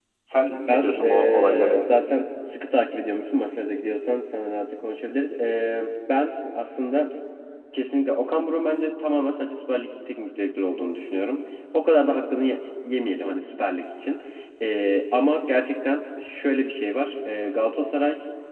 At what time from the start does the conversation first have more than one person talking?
0.7 s

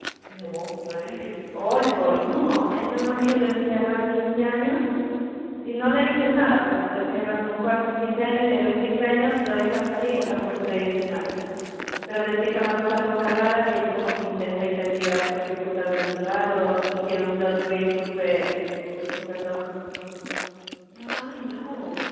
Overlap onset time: none

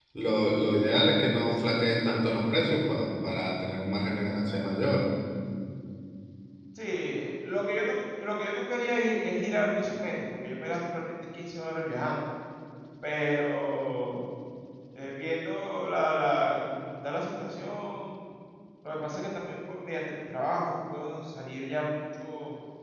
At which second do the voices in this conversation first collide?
none

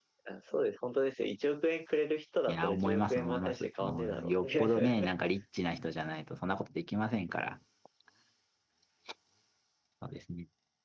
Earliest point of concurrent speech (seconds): 2.5 s

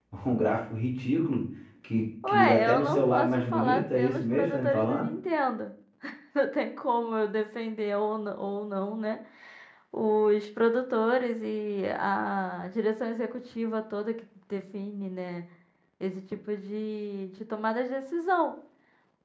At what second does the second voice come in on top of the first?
2.2 s

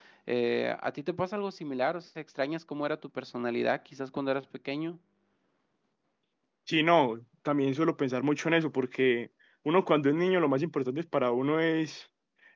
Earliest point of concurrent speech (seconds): none

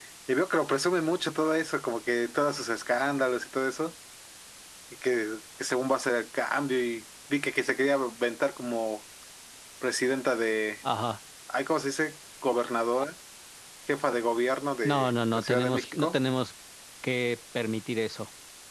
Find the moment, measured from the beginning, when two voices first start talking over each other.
14.8 s

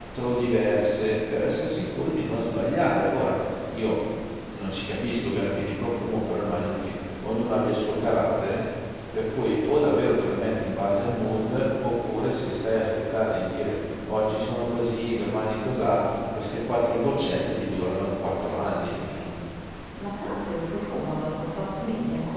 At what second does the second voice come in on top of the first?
none

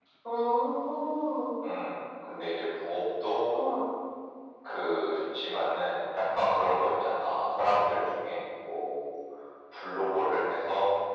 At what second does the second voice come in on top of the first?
none

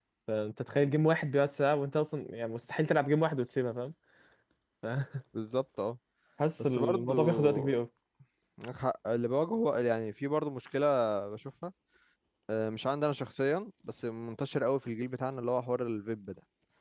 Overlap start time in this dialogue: 6.6 s

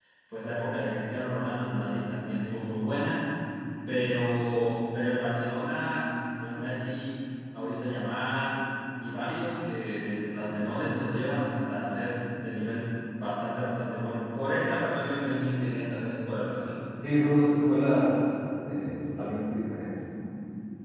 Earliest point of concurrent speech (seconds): none

